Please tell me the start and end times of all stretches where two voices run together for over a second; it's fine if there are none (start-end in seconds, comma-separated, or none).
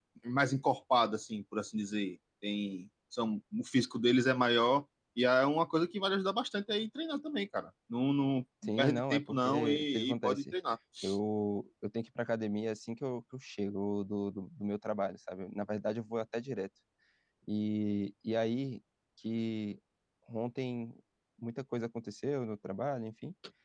8.8-10.5